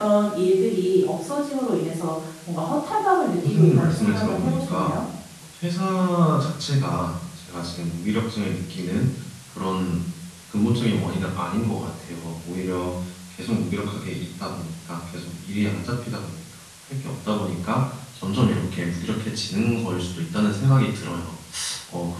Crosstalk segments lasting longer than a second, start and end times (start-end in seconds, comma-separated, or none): 3.4-4.9